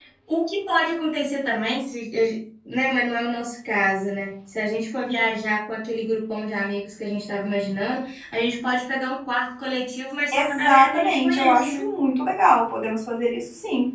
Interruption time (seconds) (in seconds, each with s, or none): 10.3 s